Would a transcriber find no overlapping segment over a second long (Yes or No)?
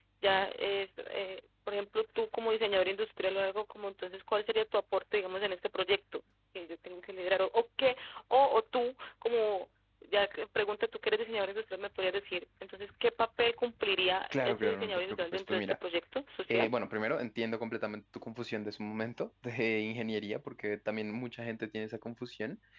No